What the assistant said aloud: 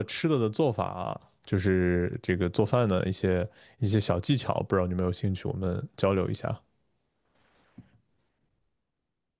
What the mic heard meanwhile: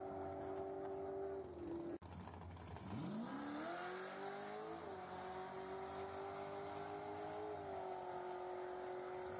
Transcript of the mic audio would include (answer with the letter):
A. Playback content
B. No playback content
B